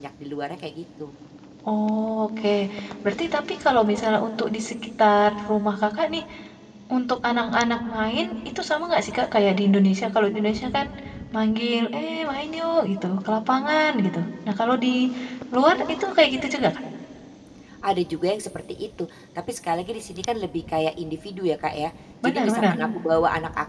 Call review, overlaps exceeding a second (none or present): none